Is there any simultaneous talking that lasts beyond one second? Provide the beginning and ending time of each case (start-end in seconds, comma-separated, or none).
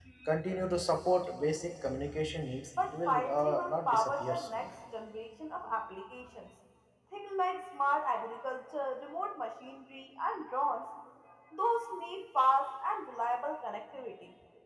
2.9-4.7